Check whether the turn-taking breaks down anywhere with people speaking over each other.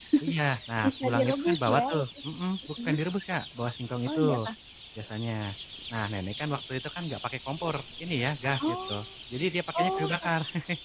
Yes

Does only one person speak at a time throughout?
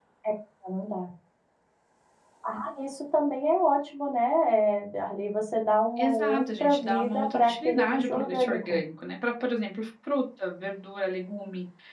No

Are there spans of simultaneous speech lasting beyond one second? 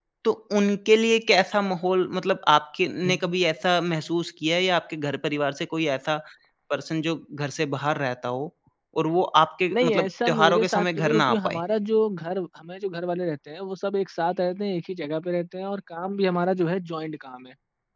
Yes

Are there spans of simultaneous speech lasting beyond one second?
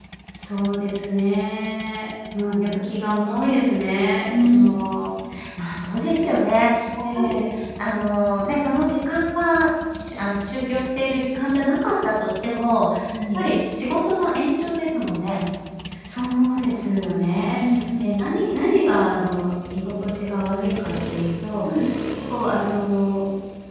No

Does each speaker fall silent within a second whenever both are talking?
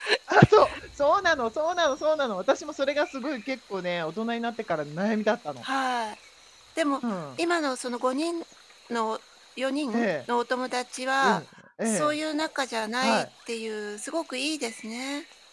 Yes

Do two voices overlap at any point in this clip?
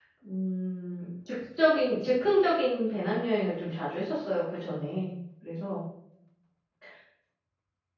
No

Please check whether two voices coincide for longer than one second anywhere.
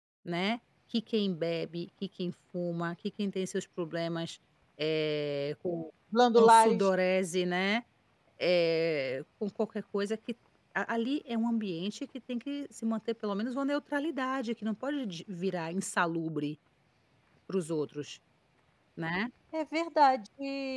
No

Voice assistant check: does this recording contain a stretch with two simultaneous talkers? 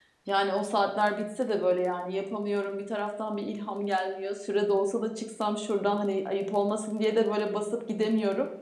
No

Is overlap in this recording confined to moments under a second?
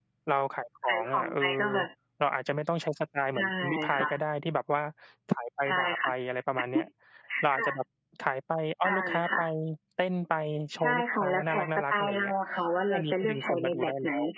No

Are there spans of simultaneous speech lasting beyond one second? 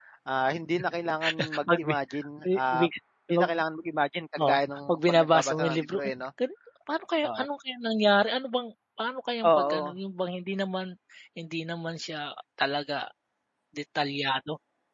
Yes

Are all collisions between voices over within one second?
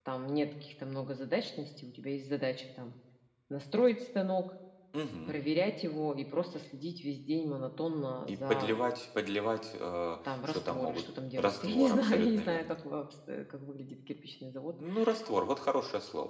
No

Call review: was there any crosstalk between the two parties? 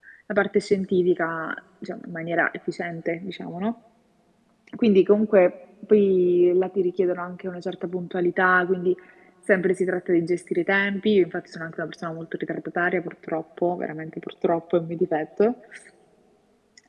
No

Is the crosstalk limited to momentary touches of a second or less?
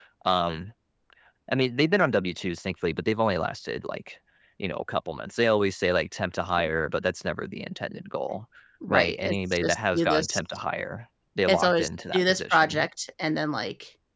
No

